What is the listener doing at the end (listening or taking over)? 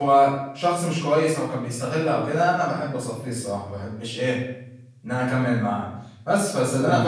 listening